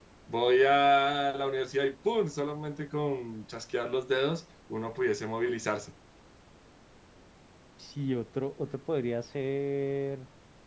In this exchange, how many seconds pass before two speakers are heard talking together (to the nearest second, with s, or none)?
none